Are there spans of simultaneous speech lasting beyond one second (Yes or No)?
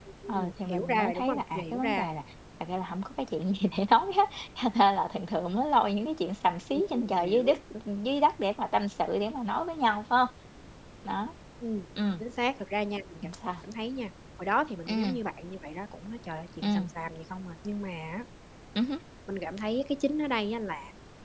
Yes